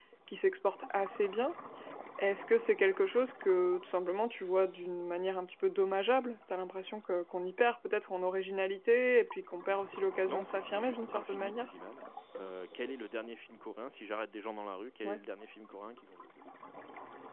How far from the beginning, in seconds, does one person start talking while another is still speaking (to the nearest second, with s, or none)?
10 s